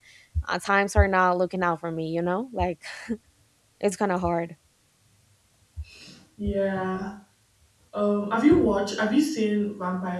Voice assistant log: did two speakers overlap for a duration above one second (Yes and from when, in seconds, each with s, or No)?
No